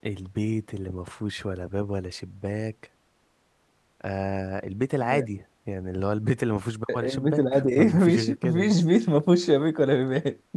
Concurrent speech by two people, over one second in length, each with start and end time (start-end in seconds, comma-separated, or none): 6.9-8.7